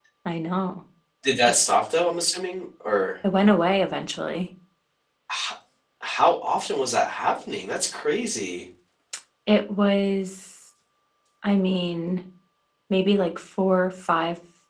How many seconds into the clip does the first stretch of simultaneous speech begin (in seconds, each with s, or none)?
none